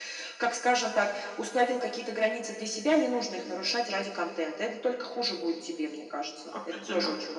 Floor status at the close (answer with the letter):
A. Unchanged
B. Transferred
B